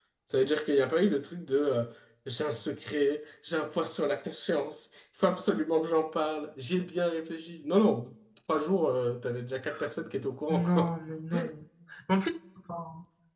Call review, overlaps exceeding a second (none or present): none